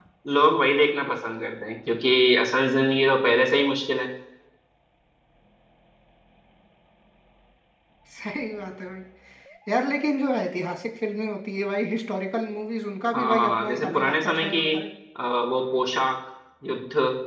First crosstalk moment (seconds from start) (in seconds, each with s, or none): 13.1 s